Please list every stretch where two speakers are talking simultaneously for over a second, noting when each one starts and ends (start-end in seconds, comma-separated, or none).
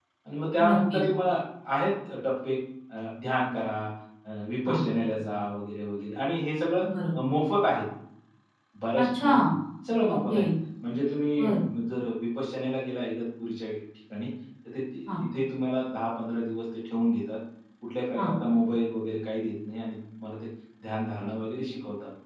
none